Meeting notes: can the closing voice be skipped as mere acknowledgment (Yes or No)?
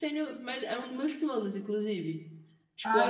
No